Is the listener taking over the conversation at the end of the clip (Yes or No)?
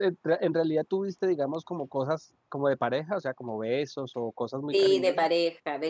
Yes